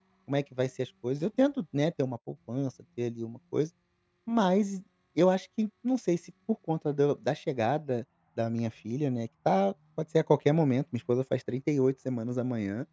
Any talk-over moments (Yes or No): No